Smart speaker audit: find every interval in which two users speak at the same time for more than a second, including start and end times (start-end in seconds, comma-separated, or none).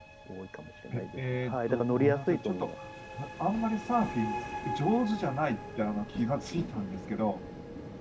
0.9-2.7